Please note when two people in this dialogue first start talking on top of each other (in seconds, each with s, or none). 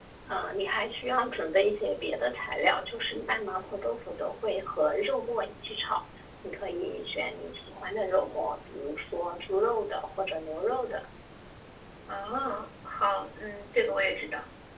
none